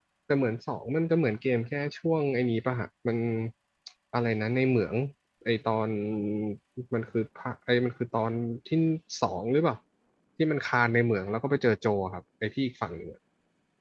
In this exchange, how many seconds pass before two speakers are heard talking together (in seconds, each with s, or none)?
none